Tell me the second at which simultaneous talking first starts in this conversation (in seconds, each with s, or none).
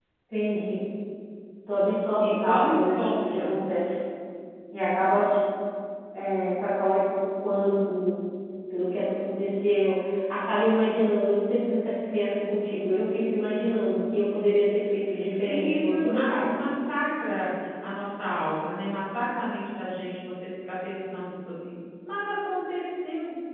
2.2 s